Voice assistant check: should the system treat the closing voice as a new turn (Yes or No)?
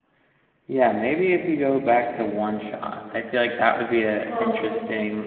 No